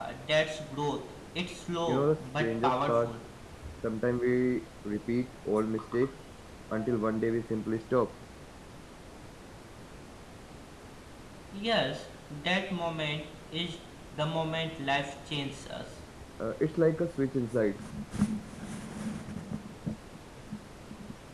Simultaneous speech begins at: 2 s

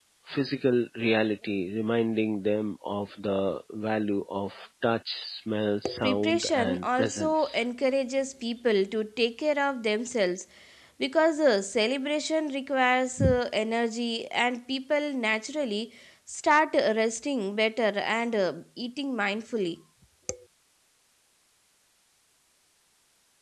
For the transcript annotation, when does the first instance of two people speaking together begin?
6 s

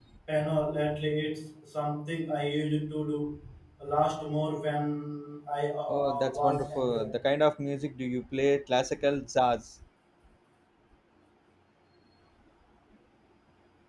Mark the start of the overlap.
6 s

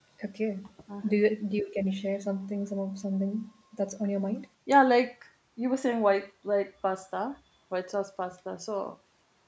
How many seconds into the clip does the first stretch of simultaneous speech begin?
none

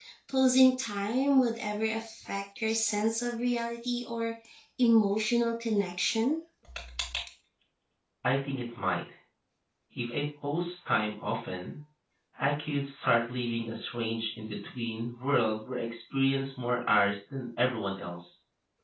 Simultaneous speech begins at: none

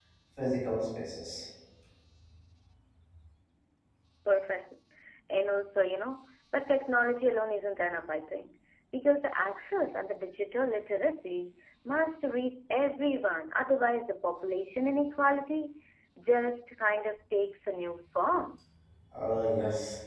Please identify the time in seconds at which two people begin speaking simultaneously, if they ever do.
none

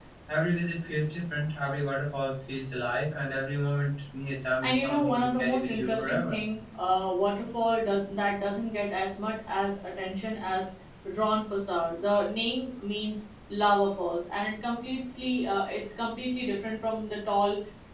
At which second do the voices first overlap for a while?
5 s

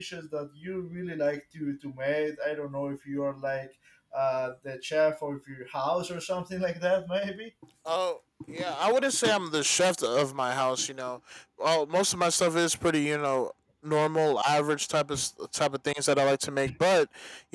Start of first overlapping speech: none

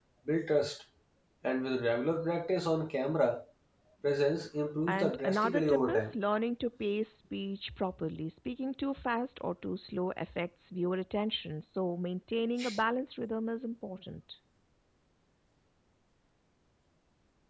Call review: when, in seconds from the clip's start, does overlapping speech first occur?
5 s

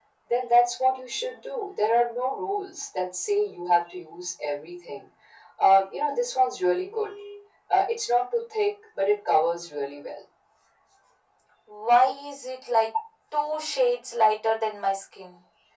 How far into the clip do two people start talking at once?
none

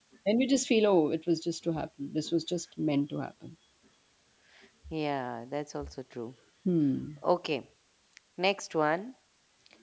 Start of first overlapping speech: none

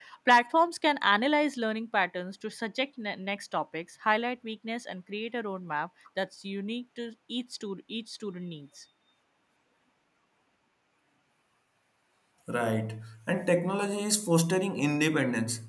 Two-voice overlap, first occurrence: none

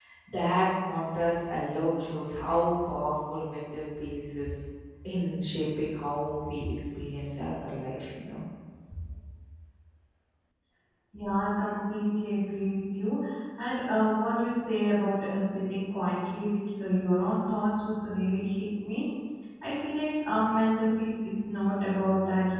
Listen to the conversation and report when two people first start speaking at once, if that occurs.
none

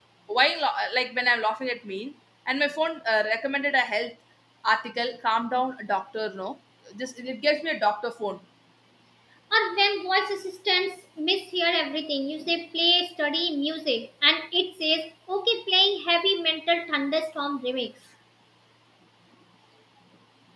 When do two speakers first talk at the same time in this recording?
none

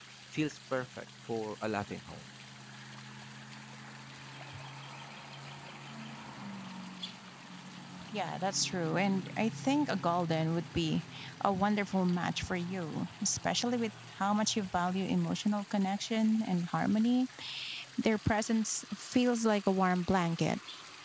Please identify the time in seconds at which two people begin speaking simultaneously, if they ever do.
none

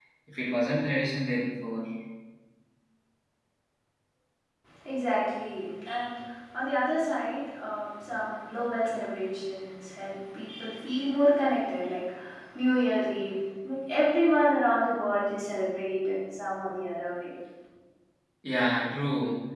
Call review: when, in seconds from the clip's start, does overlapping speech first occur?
none

